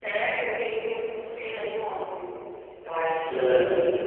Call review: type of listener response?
listening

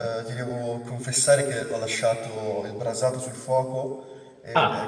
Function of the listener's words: listening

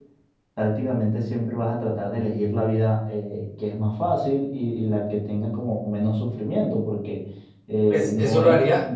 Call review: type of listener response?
taking over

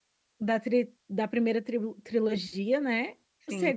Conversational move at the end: listening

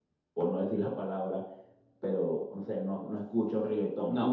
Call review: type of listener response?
listening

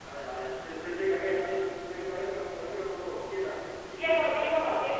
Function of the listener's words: taking over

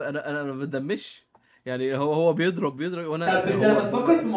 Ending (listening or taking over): taking over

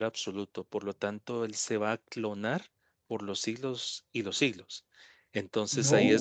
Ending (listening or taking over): listening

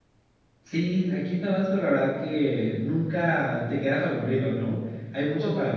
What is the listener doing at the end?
listening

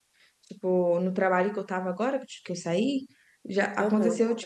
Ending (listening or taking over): listening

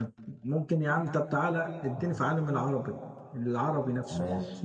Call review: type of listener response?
taking over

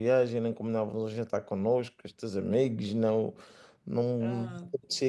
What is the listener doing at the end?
taking over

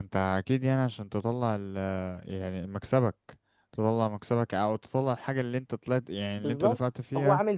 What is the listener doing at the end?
taking over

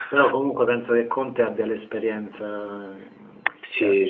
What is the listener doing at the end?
taking over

